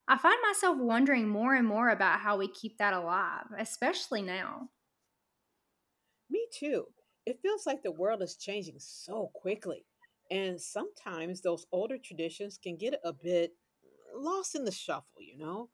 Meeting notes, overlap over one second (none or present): none